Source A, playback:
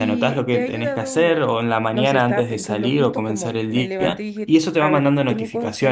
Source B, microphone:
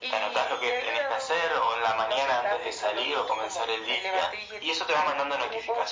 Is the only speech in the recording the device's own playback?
Yes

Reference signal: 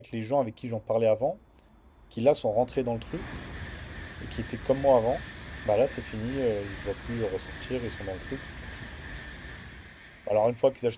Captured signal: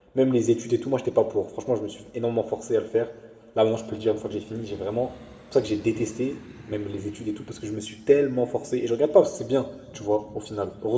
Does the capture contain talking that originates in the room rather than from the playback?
Yes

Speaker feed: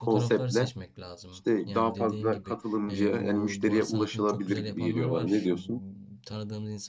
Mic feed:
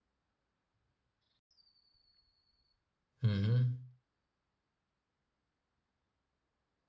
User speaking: Yes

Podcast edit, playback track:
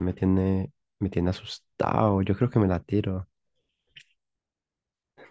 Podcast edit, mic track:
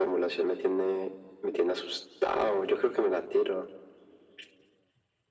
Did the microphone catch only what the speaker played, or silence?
Yes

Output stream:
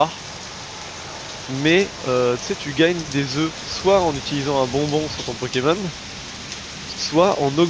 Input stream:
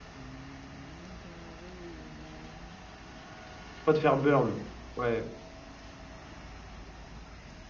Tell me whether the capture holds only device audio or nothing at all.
No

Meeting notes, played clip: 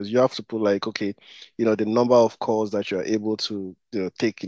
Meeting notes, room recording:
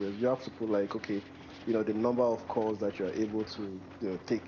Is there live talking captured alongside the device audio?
No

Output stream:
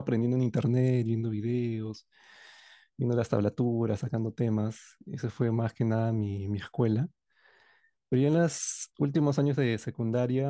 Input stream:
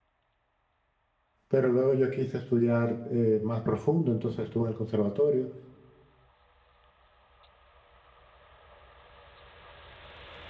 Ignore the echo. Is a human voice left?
Yes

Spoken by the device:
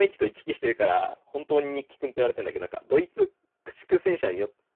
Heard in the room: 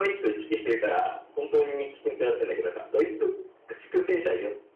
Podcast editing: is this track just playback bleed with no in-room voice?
Yes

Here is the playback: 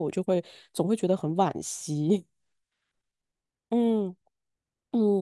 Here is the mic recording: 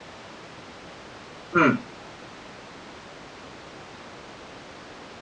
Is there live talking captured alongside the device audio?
Yes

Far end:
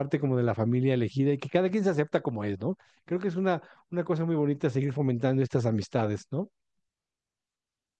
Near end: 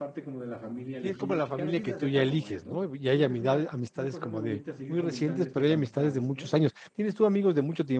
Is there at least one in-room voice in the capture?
Yes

